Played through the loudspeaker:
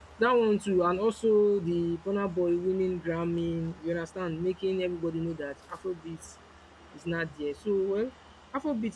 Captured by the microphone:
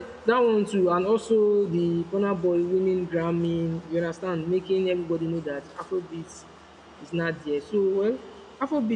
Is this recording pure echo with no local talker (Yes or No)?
Yes